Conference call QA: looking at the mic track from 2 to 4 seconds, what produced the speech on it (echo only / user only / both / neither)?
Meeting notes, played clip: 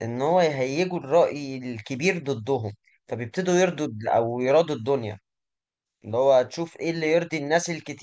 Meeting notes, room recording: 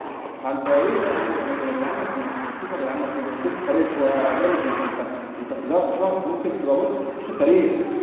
user only